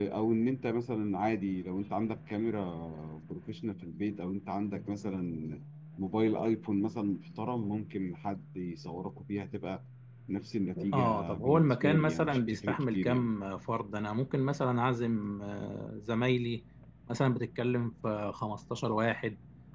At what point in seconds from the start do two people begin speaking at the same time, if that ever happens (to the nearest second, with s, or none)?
11 s